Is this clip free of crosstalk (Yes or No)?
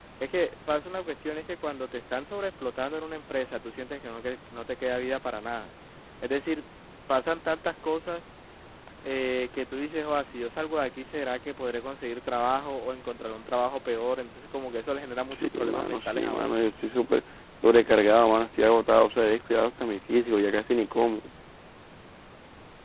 No